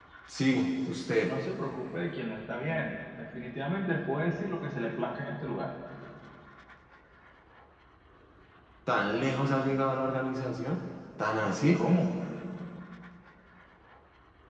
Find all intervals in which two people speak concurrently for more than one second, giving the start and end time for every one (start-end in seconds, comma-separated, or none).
none